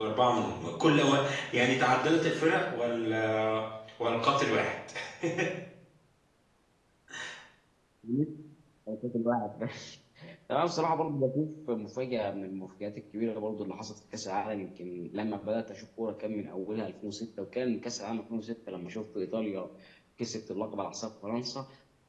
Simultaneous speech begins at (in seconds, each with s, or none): none